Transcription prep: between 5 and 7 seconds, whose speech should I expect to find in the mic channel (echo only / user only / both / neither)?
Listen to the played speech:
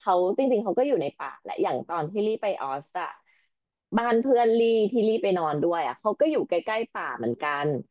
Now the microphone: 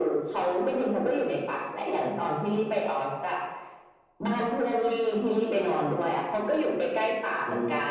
echo only